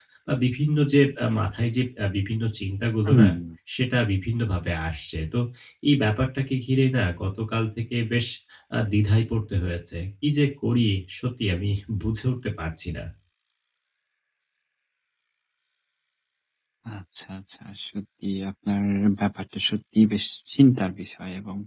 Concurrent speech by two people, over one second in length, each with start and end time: none

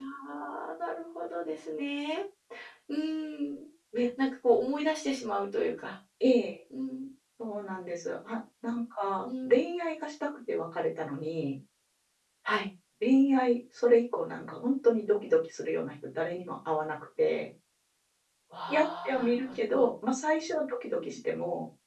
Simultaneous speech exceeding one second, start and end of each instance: 18.7-19.9

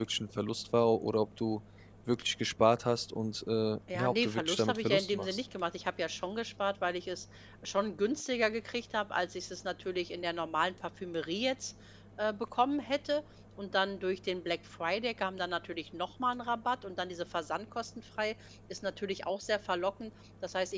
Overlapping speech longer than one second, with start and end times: 3.9-5.4

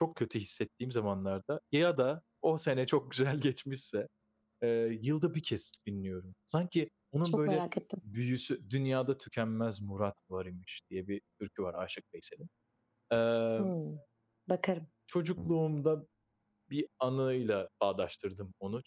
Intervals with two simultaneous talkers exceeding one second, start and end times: none

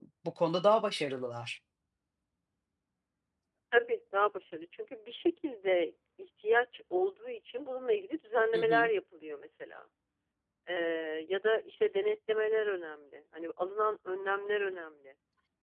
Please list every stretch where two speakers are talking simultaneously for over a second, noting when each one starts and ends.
none

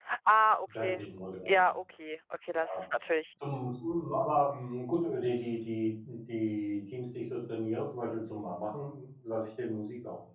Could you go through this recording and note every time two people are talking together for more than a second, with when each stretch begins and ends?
none

